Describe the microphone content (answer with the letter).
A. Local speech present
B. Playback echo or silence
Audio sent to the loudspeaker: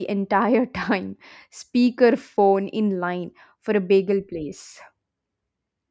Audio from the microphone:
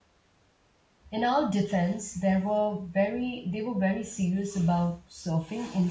A